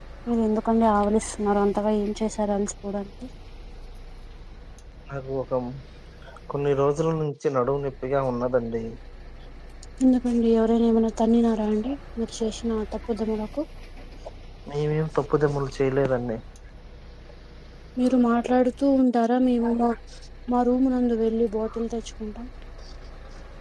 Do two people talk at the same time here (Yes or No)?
No